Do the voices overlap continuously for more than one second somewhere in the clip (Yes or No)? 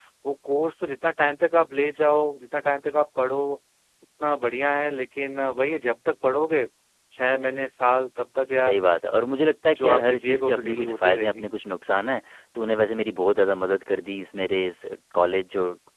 Yes